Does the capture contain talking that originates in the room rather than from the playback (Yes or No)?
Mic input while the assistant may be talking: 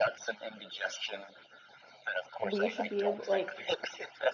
Yes